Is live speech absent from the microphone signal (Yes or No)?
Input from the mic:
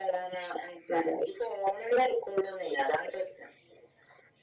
Yes